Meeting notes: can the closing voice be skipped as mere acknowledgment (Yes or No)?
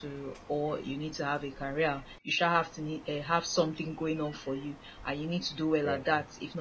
Yes